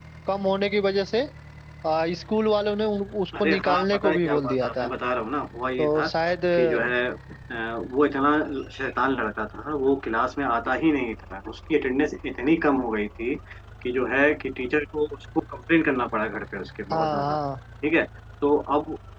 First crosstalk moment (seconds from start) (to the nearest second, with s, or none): 3 s